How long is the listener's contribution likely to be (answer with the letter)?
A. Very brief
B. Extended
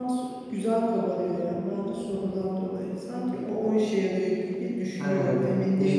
B